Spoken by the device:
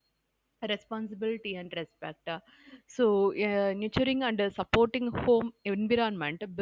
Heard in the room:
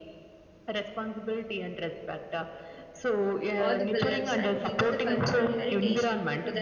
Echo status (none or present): present